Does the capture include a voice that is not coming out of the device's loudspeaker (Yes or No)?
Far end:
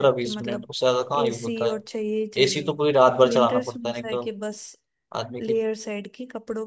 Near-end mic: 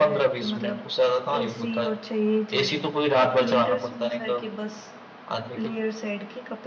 No